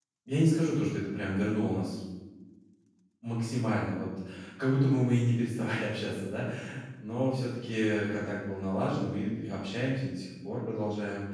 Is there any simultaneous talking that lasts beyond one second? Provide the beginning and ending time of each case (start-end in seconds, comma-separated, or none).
none